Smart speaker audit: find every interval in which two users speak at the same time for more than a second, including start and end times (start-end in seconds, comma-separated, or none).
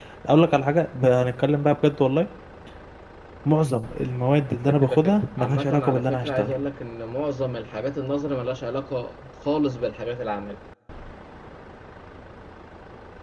4.8-6.6